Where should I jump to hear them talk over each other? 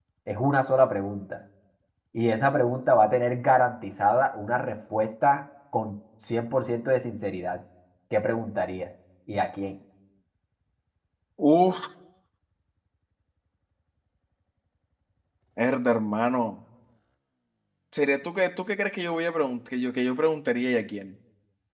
none

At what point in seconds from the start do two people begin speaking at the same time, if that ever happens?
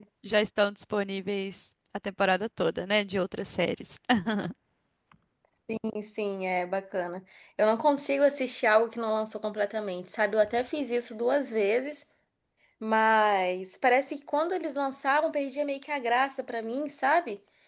none

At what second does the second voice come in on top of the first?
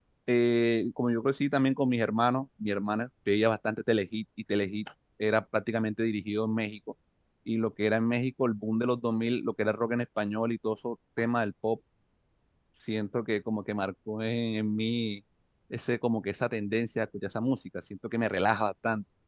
none

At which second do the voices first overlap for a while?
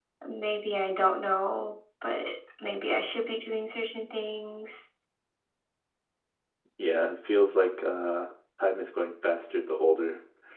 none

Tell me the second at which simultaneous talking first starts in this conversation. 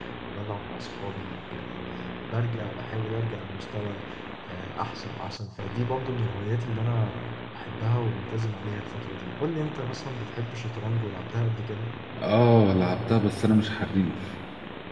none

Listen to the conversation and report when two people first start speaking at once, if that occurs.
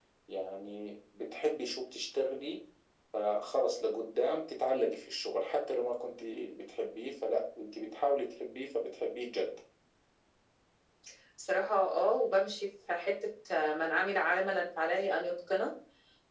none

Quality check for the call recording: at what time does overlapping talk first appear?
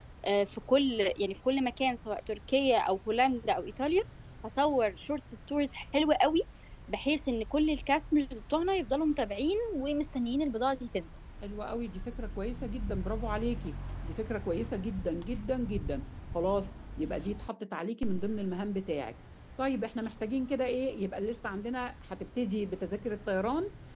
none

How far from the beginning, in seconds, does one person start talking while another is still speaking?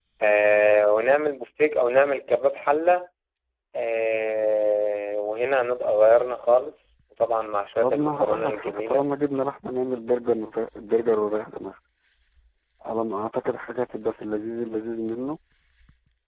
7.8 s

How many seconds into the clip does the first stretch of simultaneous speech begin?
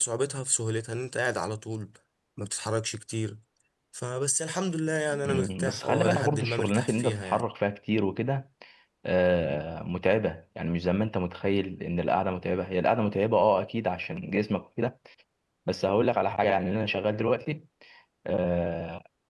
5.1 s

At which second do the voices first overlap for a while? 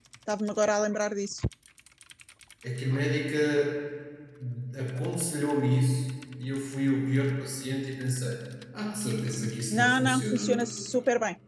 9.7 s

